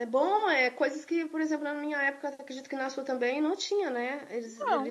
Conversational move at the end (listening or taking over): listening